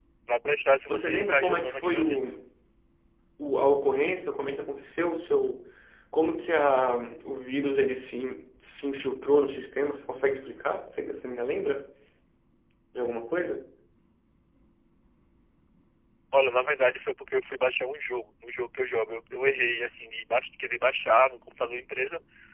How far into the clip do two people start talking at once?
0.9 s

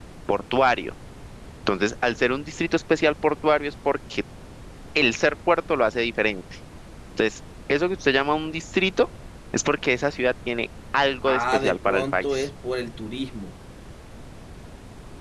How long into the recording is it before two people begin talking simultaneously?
11.2 s

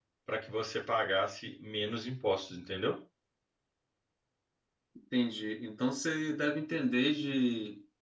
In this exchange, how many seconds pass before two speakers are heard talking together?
none

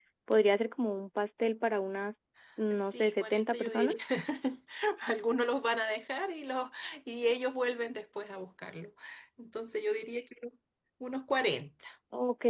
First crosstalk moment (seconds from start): 2.7 s

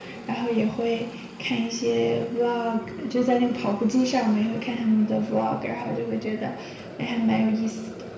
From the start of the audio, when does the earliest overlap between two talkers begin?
none

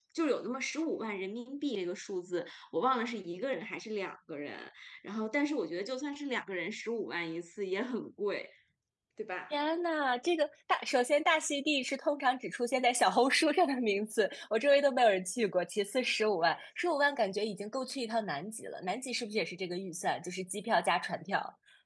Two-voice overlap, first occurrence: none

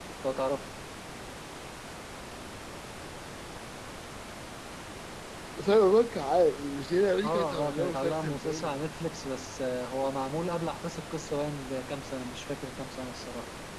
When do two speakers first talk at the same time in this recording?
7.2 s

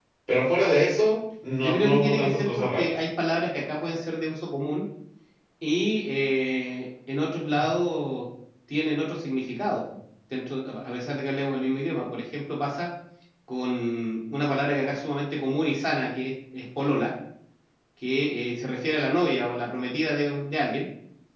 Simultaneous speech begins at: 1.6 s

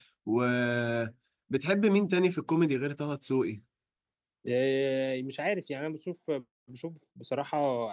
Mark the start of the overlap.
none

